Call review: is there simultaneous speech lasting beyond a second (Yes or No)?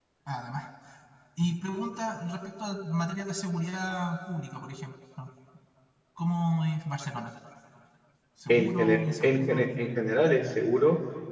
Yes